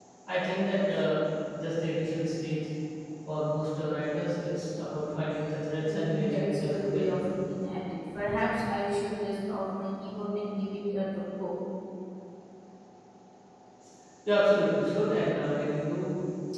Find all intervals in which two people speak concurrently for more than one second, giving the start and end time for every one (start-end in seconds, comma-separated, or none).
5.7-7.2